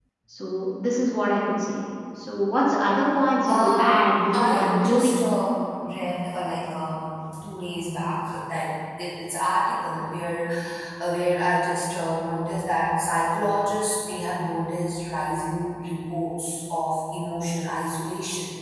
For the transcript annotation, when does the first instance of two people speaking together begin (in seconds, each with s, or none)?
3.5 s